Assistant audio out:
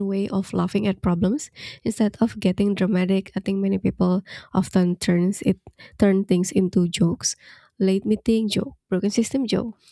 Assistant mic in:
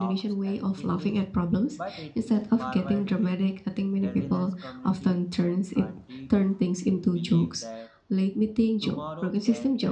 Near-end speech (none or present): present